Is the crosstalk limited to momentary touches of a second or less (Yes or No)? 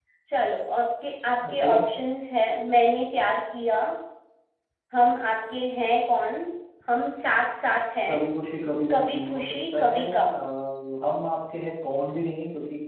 No